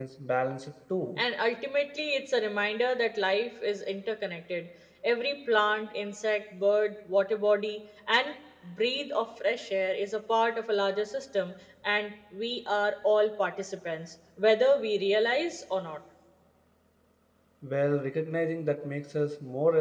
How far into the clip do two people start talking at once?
none

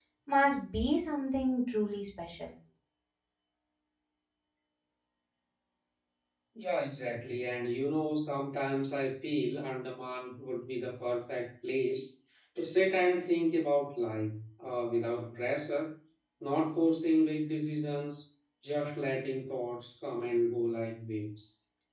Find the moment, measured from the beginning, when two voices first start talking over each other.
none

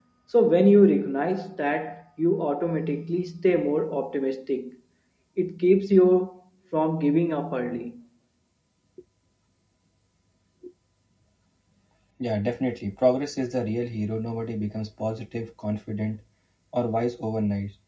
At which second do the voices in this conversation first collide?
none

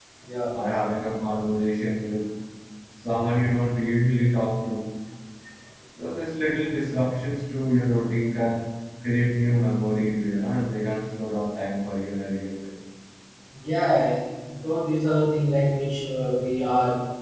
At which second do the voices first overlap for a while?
none

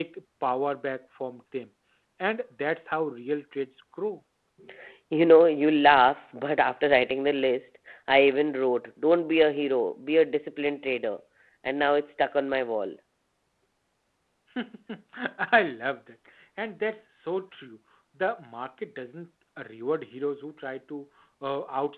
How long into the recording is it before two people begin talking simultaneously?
none

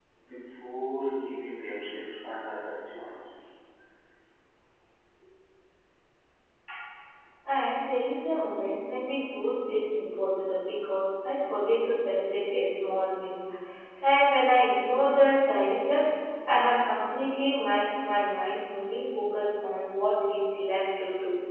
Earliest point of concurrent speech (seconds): none

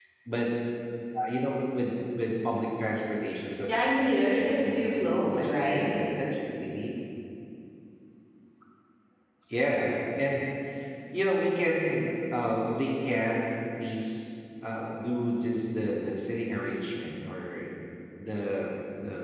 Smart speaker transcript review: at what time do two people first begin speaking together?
3.7 s

